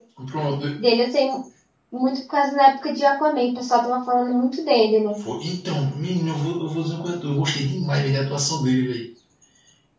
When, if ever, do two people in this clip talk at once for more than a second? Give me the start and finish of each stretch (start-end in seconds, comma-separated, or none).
none